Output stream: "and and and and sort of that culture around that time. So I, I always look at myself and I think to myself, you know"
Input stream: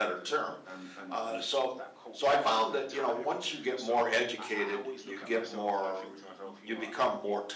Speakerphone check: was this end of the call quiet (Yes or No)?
No